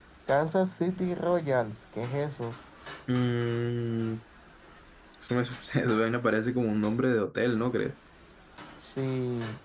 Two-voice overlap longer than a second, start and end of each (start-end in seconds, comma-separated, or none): none